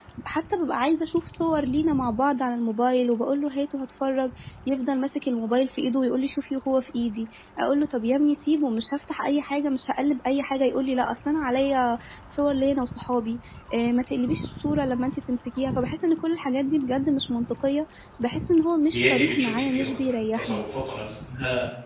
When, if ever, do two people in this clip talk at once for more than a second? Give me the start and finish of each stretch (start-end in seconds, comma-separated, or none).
18.9-20.6